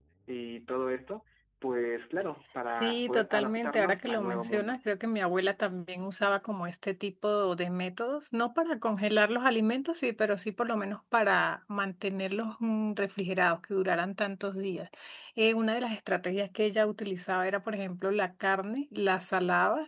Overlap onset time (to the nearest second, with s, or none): 3 s